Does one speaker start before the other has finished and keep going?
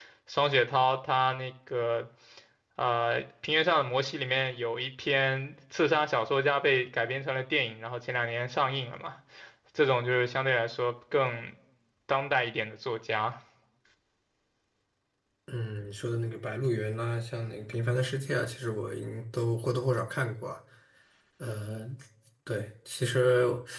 No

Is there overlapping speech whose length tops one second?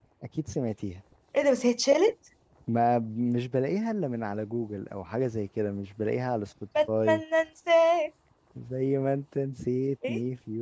No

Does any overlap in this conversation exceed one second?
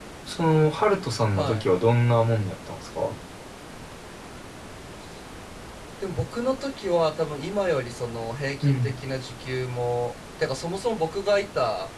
No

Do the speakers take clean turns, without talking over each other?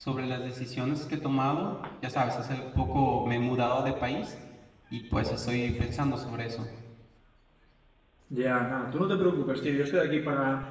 Yes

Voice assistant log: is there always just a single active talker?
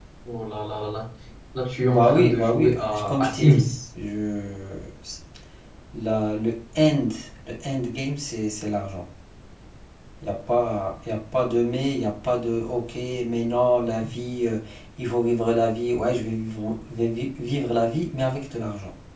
No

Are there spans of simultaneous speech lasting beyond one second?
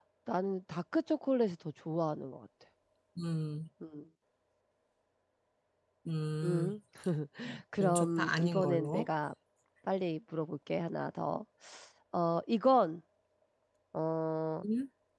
Yes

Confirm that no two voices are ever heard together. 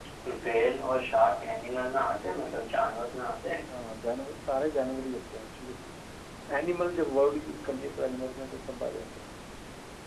Yes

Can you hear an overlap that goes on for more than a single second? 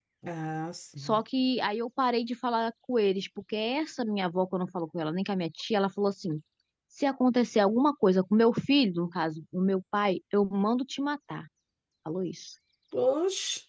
No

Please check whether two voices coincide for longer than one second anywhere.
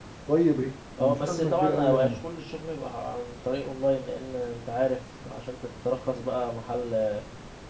Yes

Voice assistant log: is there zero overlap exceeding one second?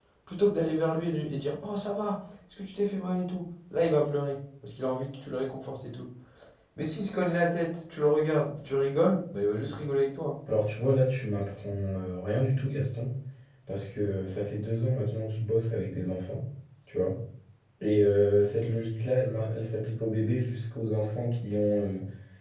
Yes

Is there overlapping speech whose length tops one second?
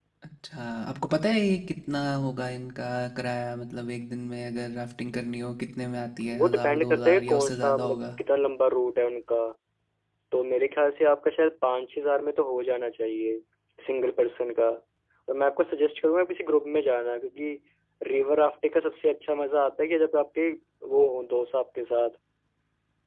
Yes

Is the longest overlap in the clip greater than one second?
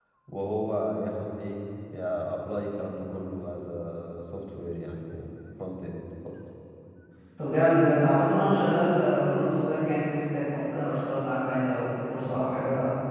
No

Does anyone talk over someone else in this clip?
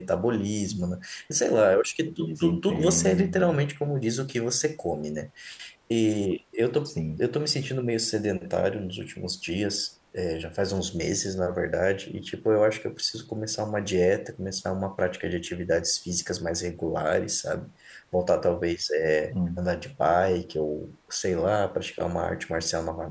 Yes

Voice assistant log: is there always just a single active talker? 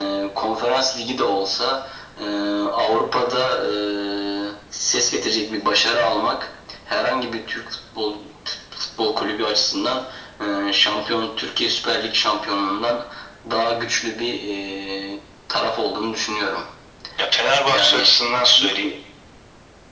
No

